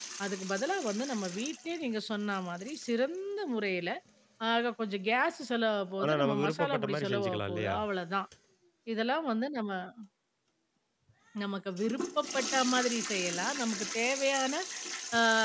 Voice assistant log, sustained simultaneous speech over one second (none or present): present